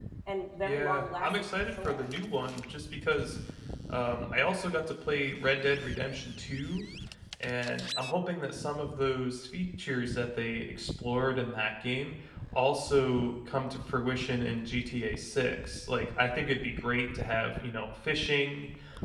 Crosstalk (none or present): present